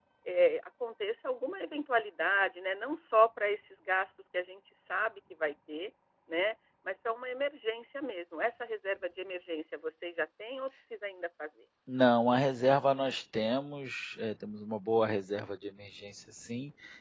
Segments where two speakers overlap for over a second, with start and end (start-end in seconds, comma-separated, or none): none